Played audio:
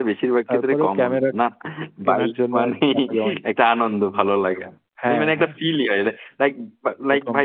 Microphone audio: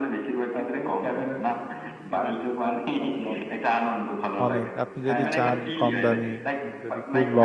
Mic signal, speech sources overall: both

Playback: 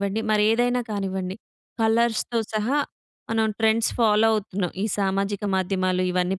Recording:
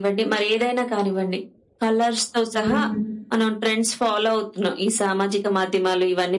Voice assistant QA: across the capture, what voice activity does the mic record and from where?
both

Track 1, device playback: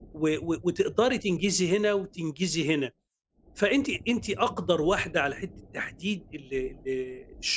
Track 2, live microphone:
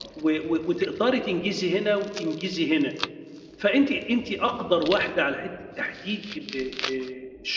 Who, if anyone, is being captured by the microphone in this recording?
echo only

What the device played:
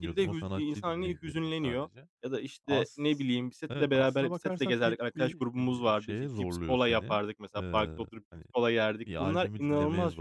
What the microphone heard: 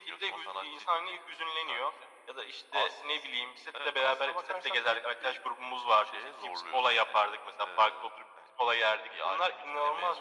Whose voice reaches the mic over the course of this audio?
echo only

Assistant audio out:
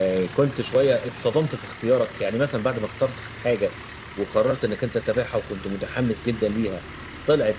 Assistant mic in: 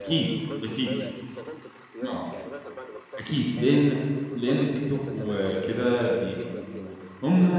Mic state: both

